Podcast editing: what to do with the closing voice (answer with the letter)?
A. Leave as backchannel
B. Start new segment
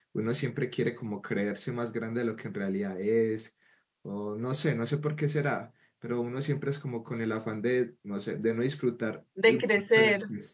A